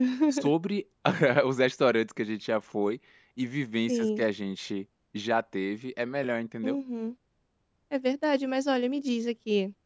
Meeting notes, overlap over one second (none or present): none